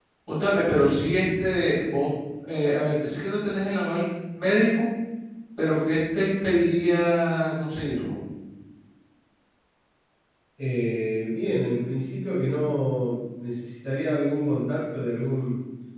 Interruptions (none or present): none